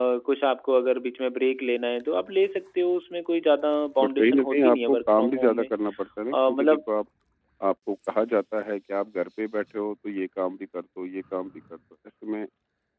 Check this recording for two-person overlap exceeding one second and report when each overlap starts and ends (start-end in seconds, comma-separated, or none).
4.0-5.7